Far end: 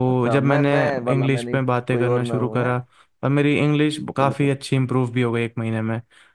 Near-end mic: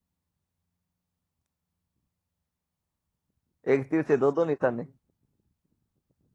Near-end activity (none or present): present